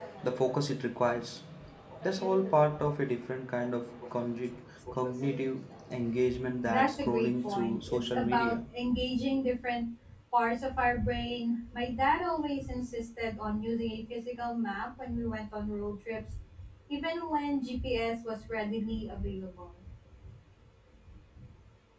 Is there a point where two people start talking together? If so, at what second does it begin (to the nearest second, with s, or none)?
7 s